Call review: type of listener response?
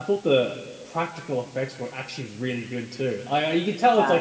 listening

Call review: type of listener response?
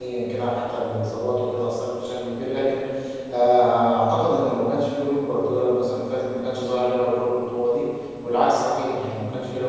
taking over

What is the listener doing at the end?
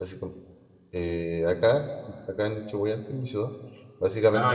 listening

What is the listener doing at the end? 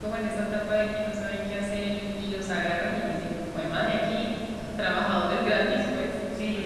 taking over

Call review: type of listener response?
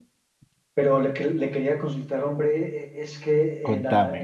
listening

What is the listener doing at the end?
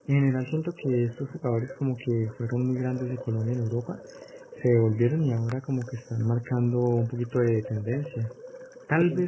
listening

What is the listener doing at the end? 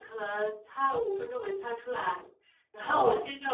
listening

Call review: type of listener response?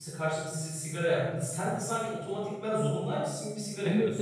taking over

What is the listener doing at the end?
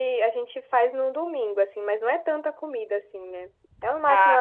listening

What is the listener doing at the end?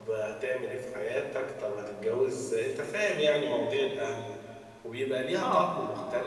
listening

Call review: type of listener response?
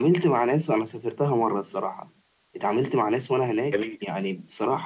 listening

